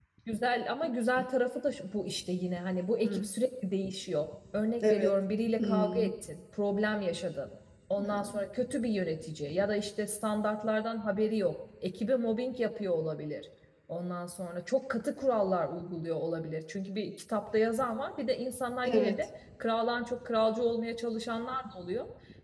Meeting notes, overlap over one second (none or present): none